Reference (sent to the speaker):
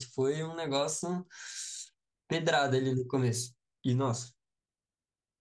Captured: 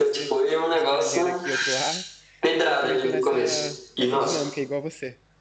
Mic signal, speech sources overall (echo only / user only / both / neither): both